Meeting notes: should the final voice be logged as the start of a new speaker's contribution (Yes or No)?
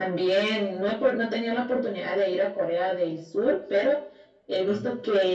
No